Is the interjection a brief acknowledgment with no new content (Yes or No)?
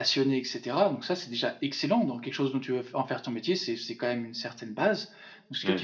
Yes